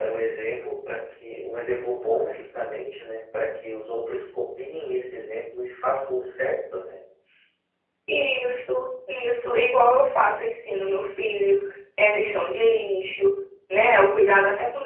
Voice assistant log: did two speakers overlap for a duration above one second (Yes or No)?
No